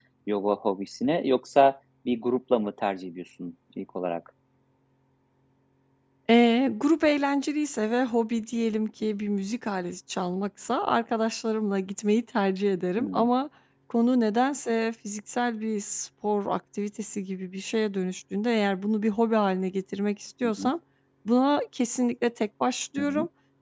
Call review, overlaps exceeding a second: none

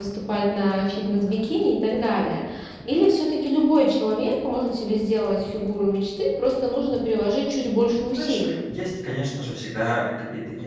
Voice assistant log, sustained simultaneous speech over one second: none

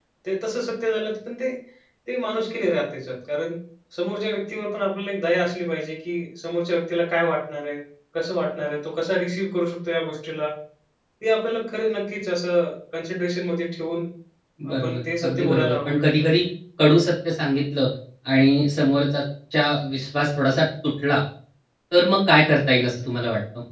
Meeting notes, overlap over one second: present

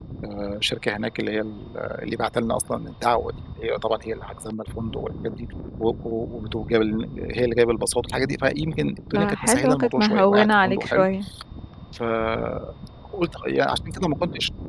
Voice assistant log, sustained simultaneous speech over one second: present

